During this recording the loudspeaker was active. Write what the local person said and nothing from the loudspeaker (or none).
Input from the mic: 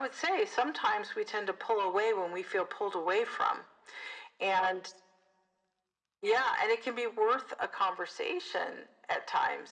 none